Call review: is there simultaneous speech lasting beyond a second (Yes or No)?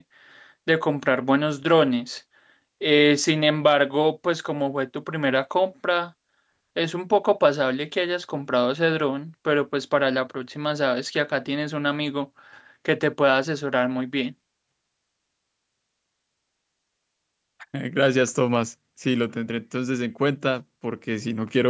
No